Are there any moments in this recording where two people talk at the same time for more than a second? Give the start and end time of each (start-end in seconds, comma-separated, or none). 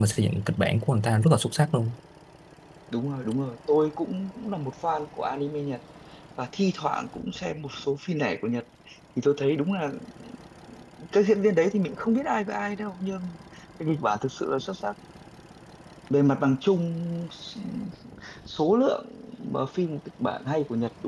none